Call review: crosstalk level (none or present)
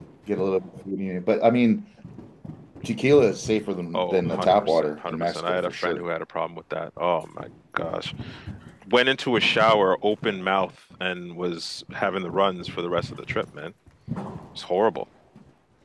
present